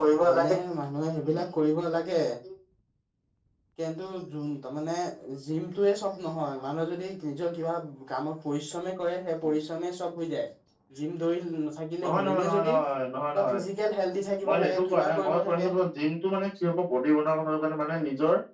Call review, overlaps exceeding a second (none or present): present